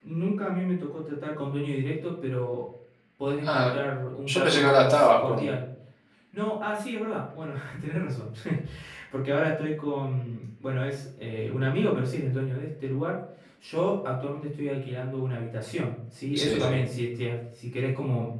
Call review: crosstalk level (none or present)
present